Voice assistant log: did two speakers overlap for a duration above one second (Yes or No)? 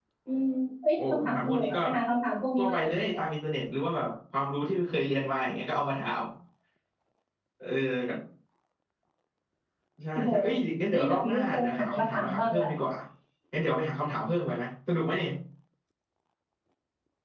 Yes